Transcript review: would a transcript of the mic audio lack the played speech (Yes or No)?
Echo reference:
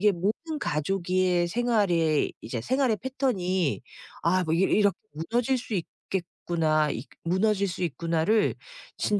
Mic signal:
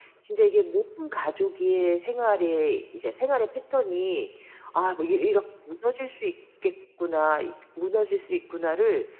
No